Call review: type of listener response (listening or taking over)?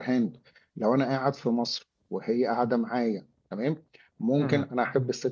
listening